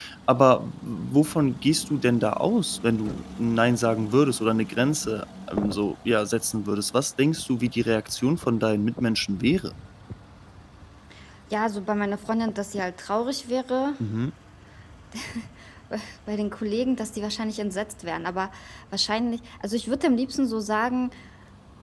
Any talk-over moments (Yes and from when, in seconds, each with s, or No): No